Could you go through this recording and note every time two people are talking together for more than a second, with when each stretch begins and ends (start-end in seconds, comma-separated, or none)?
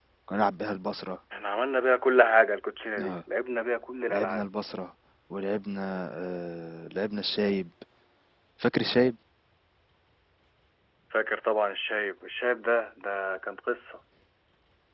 none